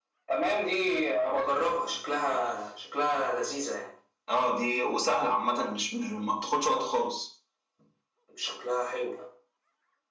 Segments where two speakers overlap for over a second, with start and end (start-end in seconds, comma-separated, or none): none